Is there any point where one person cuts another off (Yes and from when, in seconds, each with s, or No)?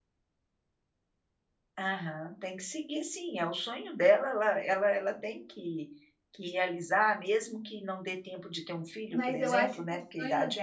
Yes, from 9.1 s